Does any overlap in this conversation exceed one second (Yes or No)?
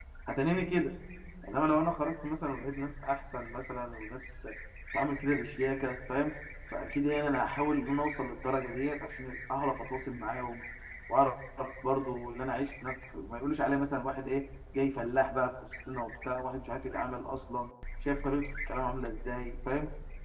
No